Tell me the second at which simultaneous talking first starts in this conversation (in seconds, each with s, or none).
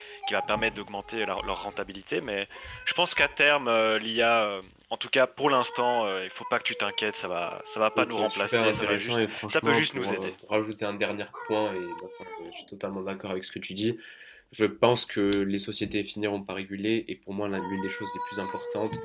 8.0 s